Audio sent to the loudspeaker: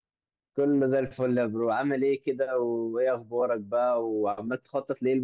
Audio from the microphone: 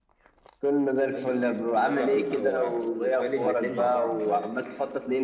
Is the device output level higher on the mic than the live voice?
Yes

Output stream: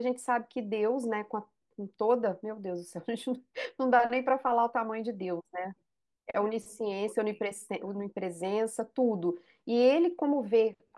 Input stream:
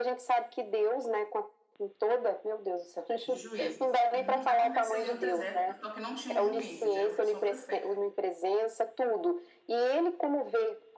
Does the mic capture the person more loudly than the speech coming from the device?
No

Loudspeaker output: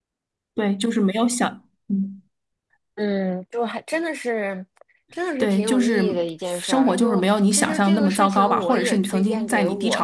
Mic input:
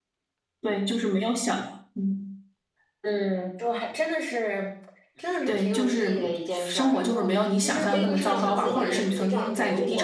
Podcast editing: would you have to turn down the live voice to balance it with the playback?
No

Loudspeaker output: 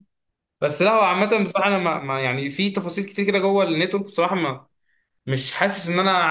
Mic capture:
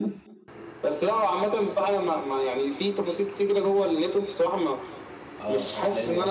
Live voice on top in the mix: No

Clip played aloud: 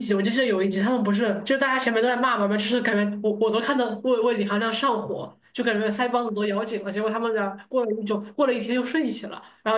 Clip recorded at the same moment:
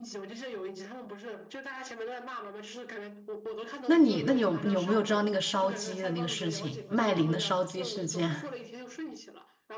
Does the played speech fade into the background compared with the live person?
Yes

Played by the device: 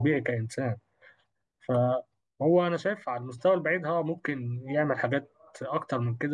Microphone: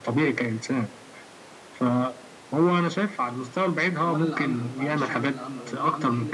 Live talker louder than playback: No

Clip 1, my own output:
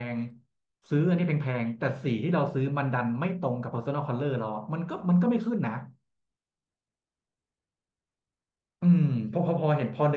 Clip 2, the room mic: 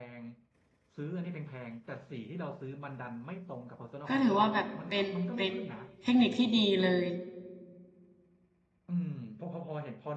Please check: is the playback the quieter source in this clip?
Yes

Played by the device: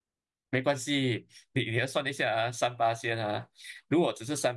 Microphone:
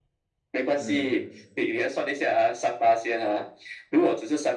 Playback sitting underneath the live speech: No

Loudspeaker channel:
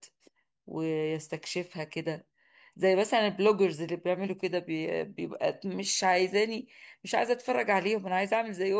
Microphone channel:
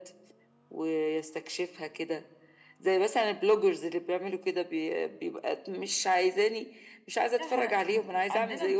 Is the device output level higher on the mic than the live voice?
Yes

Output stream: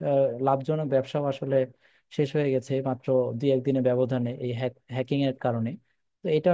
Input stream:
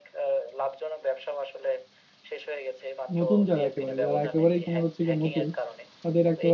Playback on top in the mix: No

